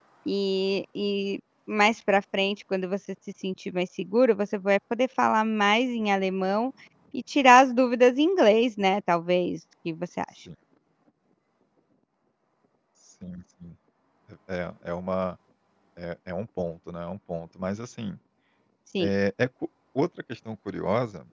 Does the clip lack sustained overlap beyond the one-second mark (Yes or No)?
Yes